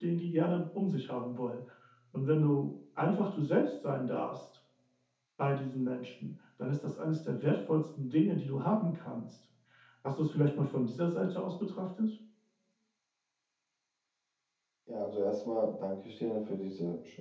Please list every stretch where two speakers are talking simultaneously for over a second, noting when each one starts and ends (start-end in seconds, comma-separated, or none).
none